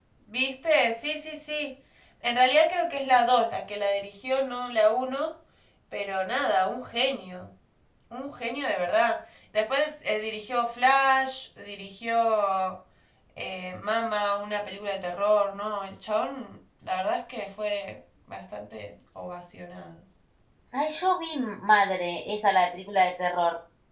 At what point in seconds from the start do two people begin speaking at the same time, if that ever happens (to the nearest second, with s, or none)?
none